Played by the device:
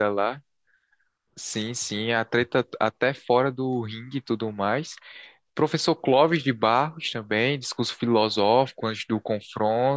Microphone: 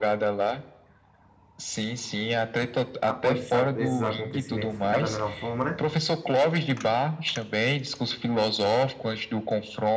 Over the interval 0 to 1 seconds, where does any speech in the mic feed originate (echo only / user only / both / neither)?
echo only